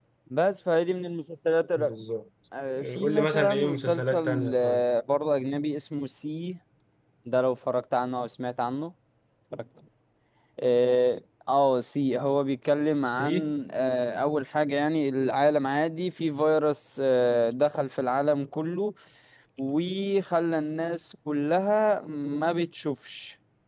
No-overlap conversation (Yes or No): No